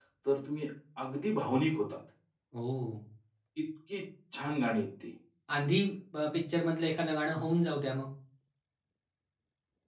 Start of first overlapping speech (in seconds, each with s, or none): none